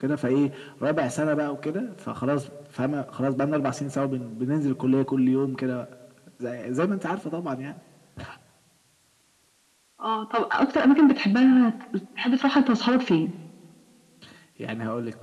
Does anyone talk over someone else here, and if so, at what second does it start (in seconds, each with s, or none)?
none